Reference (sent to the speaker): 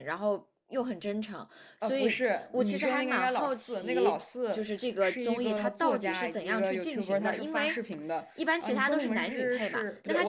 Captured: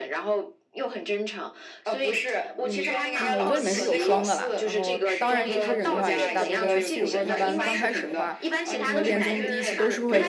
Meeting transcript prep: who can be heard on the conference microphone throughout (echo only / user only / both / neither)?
both